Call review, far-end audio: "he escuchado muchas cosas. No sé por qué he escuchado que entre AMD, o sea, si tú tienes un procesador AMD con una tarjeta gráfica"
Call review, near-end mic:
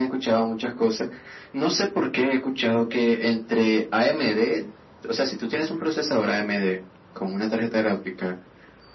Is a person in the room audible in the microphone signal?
No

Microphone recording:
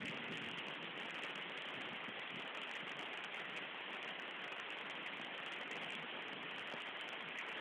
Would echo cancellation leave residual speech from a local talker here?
No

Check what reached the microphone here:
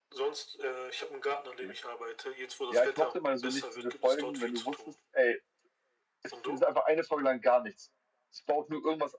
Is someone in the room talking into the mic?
Yes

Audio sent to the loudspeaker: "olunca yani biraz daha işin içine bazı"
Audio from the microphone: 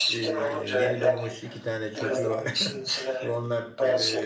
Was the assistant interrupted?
Yes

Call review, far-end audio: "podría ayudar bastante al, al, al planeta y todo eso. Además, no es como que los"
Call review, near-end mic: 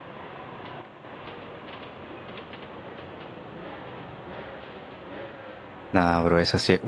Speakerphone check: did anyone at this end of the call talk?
Yes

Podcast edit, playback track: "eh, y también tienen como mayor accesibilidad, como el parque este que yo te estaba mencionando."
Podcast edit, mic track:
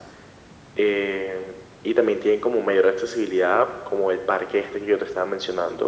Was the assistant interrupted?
No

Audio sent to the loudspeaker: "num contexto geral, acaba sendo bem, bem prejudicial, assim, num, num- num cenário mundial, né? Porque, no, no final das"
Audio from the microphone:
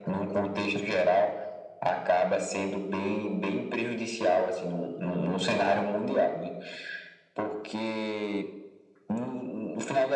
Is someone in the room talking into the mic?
No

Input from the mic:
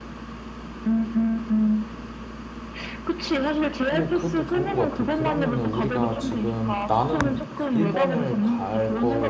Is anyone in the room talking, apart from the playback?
Yes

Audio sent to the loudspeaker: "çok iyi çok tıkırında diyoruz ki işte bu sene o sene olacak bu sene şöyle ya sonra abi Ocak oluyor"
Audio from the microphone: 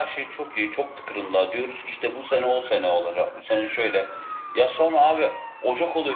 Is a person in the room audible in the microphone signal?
No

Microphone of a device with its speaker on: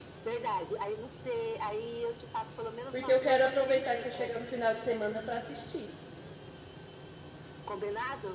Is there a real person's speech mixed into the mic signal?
Yes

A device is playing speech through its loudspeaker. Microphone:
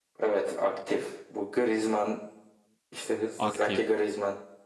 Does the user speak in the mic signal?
Yes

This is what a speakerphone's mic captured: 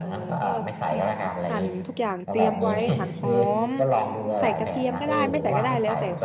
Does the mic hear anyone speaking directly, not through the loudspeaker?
Yes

